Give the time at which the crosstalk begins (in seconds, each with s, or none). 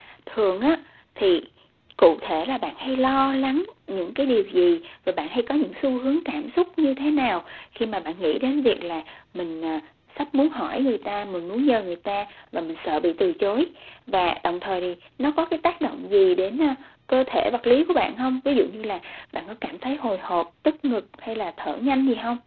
none